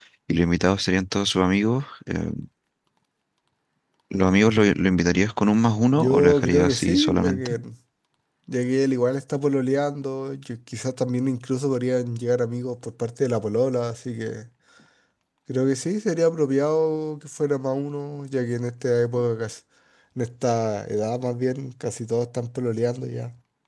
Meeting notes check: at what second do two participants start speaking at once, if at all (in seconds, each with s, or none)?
5.9 s